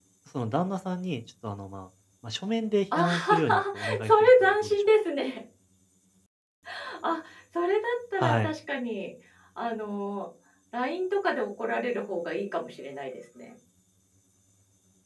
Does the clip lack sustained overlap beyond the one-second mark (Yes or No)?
No